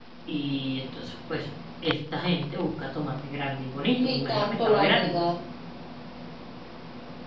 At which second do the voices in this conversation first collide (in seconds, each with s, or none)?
3.8 s